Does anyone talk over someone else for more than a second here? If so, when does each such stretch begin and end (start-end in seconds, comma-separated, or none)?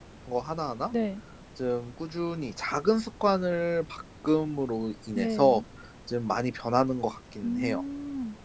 none